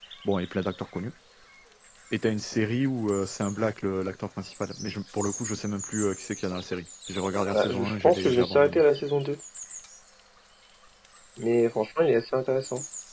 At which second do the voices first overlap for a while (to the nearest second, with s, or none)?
8 s